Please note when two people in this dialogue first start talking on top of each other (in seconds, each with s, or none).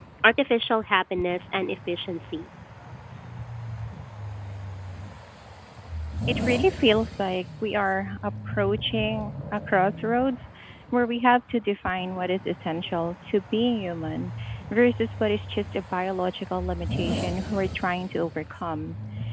none